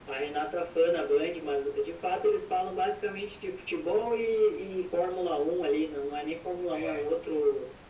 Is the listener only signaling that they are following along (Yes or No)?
Yes